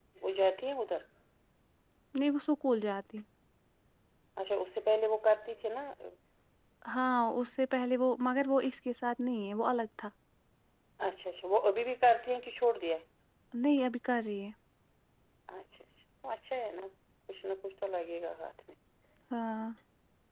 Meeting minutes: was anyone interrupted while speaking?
No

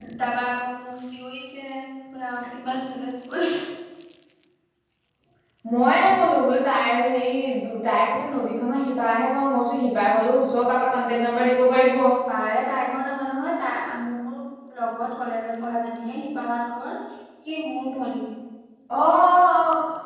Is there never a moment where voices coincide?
Yes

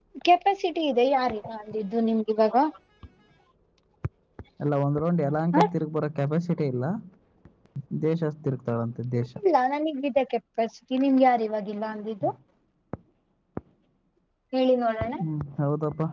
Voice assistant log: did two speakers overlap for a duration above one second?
No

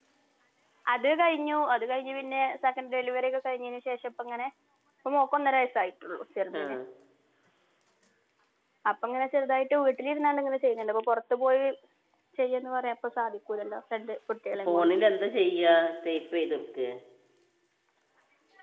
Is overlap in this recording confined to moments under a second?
Yes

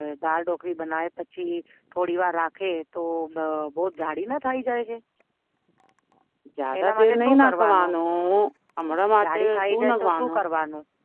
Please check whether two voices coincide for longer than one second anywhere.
Yes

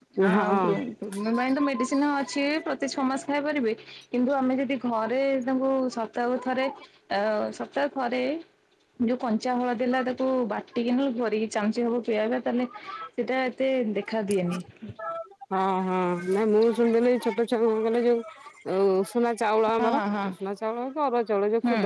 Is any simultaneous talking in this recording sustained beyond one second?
Yes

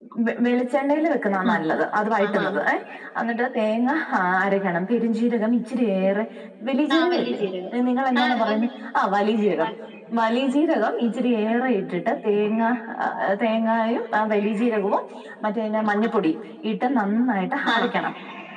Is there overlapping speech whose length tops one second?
No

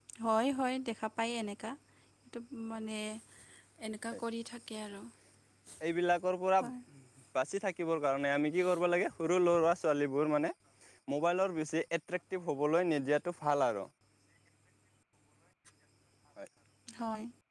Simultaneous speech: No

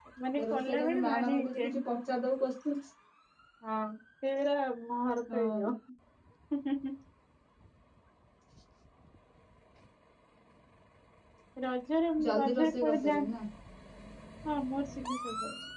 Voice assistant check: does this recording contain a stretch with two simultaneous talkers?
Yes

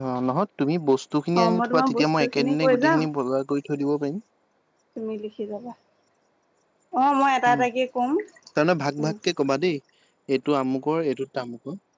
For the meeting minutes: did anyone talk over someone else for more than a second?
Yes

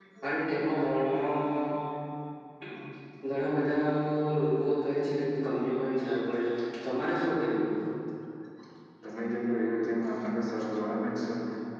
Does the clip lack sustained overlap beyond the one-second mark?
Yes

